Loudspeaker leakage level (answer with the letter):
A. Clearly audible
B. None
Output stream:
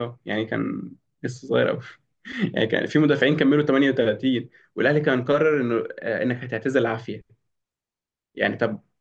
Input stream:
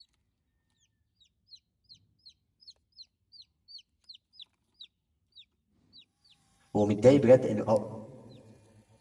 B